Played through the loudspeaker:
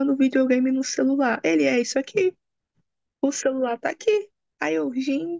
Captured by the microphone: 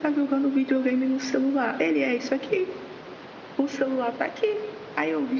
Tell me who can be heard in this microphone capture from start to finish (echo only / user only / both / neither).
echo only